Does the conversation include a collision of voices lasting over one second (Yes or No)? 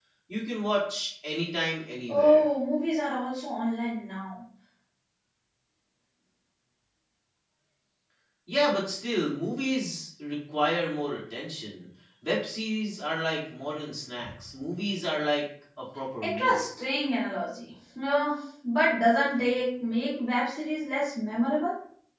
No